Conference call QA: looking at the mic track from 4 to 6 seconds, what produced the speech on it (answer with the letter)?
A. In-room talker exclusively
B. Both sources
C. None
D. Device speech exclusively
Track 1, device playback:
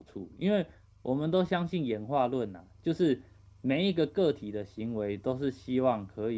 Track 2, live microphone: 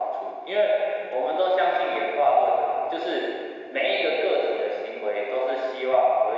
D